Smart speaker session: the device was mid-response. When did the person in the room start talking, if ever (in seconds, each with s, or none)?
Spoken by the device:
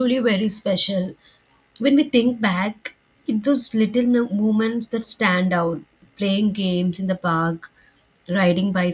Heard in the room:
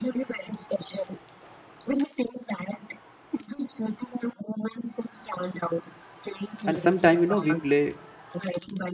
6.7 s